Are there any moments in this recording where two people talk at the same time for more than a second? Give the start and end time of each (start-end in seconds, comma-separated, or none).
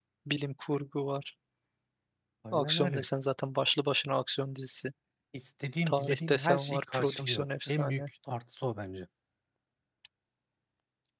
5.9-8.1